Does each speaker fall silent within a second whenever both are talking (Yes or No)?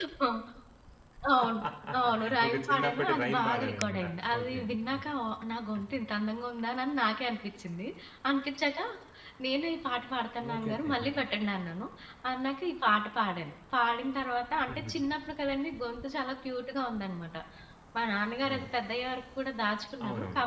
No